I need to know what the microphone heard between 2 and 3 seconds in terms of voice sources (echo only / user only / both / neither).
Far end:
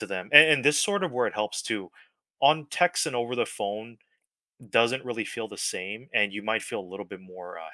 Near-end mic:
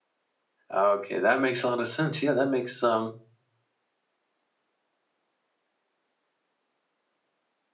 user only